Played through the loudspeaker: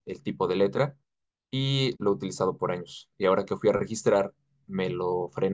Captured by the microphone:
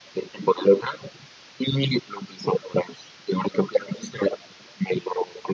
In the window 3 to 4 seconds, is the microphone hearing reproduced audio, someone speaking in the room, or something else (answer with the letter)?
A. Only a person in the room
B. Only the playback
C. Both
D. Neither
B